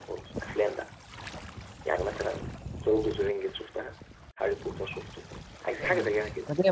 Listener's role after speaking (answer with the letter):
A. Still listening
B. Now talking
B